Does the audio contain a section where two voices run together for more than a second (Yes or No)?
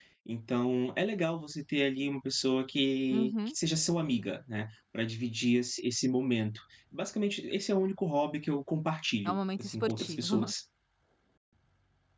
Yes